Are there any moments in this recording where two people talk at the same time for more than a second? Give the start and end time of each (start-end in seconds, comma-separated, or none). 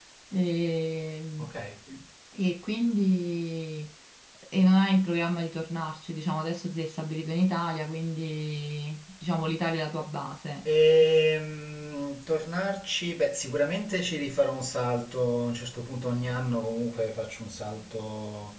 none